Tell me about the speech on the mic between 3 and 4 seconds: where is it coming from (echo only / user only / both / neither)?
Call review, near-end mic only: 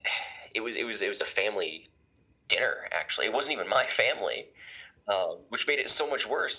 echo only